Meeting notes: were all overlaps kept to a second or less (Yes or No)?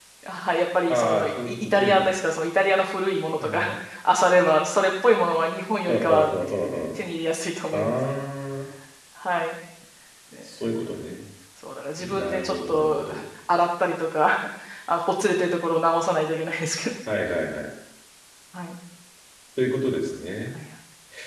No